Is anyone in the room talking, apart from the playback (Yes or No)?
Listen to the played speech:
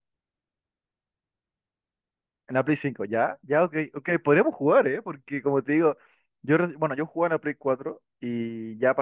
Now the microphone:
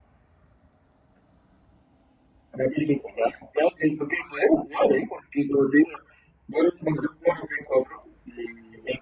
No